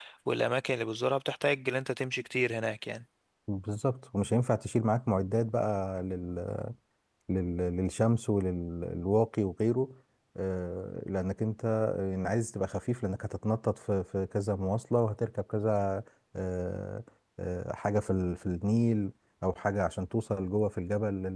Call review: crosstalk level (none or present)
none